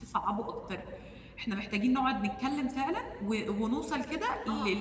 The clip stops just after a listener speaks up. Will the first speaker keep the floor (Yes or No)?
Yes